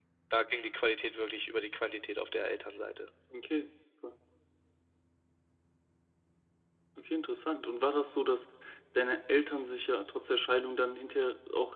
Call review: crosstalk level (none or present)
none